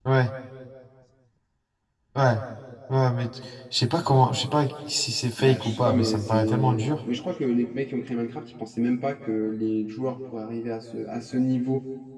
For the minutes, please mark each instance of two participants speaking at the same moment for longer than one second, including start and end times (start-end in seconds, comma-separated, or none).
5.4-7.0